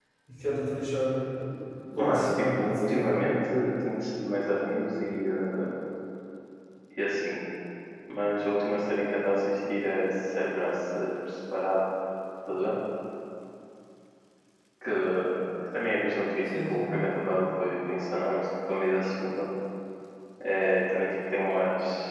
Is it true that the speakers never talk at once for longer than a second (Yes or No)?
No